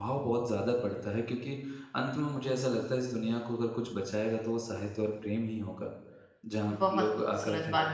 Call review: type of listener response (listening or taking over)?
taking over